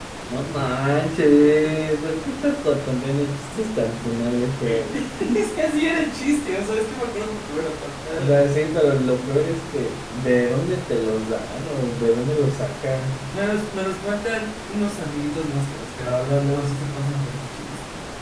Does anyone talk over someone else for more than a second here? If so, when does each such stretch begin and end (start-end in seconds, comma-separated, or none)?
none